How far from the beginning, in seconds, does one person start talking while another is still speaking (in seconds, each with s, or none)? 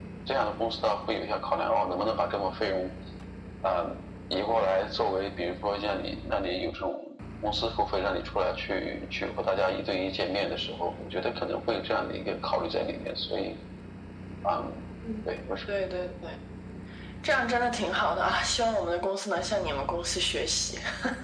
none